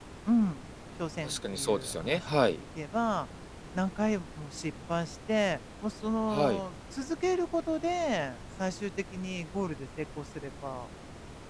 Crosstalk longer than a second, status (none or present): present